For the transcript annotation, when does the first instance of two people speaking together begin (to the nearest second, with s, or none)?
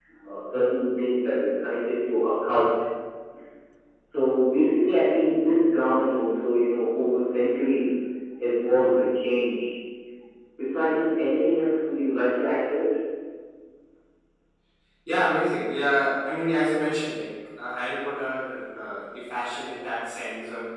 none